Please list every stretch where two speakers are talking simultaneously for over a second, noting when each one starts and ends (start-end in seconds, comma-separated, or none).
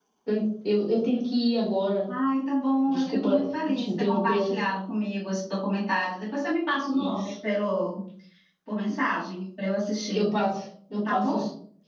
2.9-4.5